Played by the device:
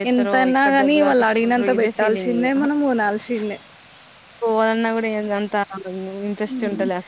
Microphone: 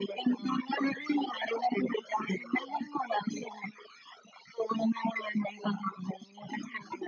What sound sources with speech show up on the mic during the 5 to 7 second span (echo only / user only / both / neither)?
echo only